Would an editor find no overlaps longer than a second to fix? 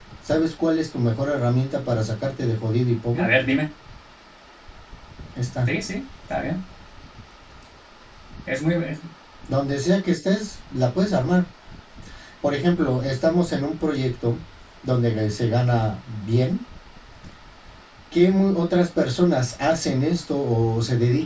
Yes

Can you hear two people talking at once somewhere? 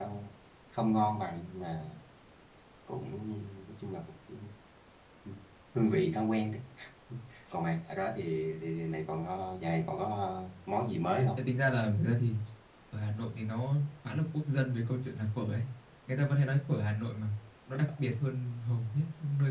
No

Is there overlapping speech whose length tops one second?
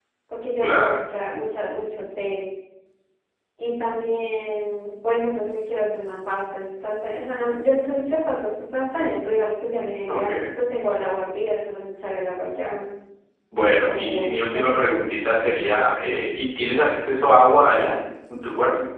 Yes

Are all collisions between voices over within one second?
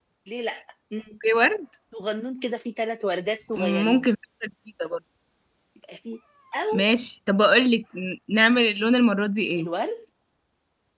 Yes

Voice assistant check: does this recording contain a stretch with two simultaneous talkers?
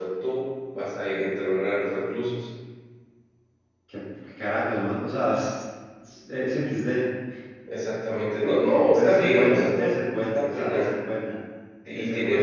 Yes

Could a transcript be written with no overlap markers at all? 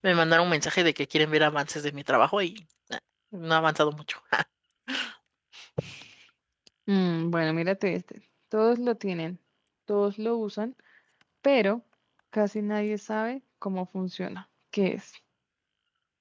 Yes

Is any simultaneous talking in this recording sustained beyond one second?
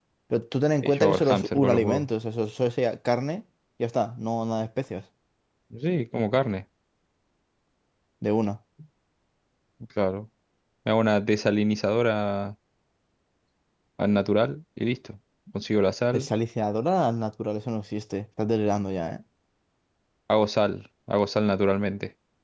Yes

